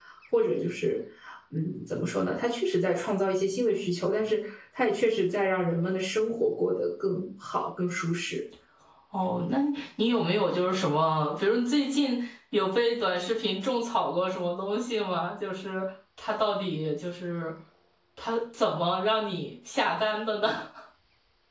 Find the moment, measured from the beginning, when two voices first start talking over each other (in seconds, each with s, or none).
none